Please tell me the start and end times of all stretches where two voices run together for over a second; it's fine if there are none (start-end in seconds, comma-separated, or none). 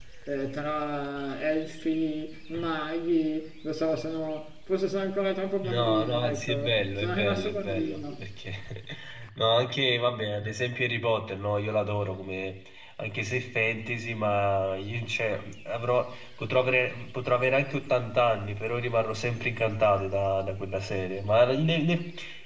5.6-8.2